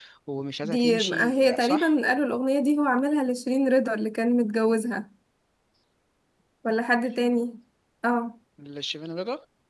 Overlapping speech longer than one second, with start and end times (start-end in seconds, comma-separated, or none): 0.6-1.9